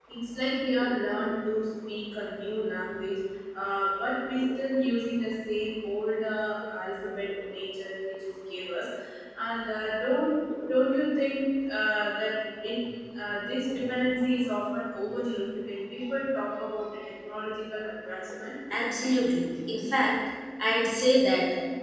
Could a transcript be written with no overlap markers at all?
Yes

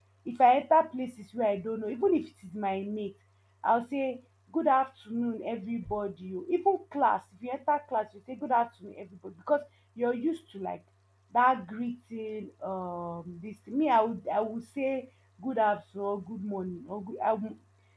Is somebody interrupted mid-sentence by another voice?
No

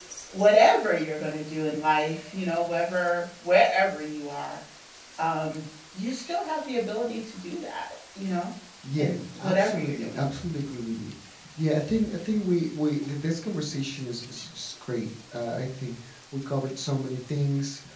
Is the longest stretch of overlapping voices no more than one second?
No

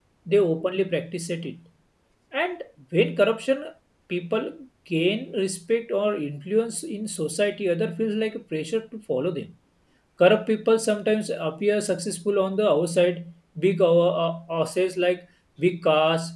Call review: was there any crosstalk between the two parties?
No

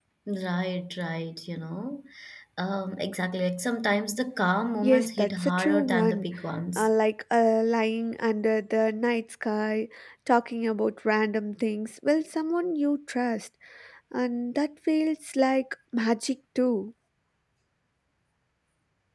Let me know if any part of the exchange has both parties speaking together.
Yes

